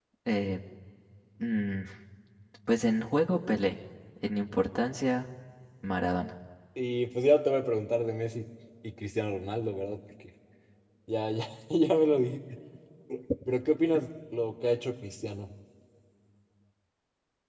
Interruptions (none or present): none